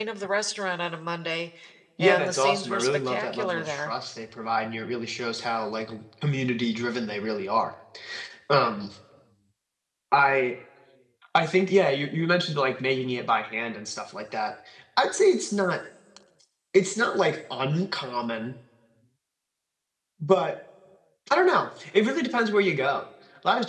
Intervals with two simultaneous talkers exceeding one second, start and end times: 2.0-3.9

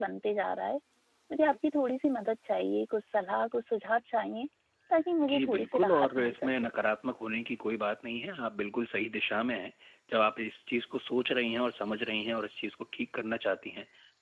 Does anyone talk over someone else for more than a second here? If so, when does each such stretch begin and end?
5.2-6.7

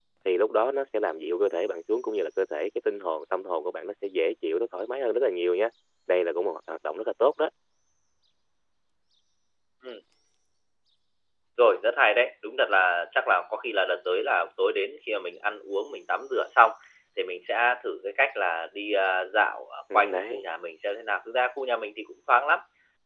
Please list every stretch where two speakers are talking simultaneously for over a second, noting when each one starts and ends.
none

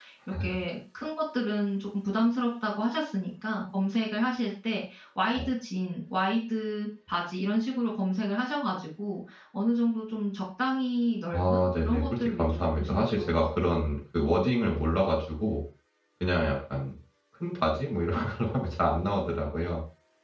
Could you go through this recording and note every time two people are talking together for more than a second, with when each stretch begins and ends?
11.3-13.8

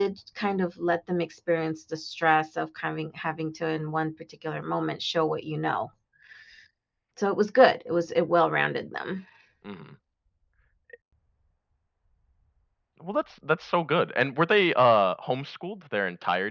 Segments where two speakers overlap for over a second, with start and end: none

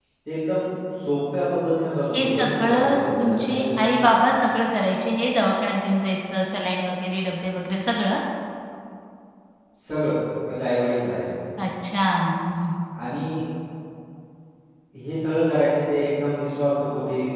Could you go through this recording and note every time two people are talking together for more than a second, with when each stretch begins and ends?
2.1-3.7

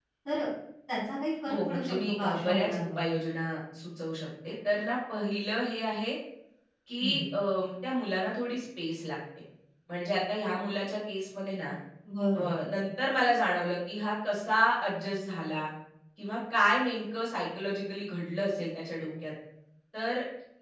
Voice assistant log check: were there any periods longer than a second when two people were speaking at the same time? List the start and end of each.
1.5-3.0

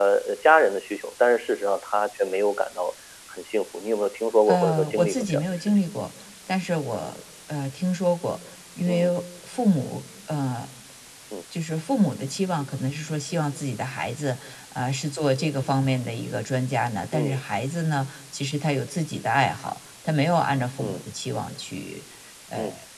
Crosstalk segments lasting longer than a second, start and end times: 4.5-5.8

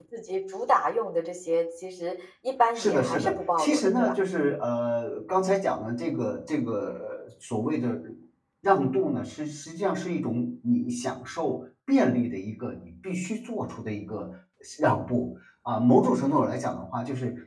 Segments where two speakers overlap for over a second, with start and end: 2.8-4.1

